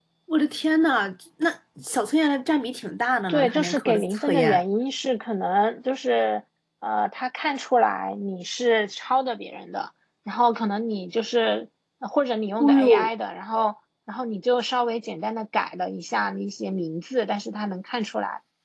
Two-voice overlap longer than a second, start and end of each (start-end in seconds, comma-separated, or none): 3.3-4.6